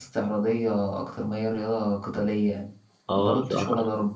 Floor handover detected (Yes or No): Yes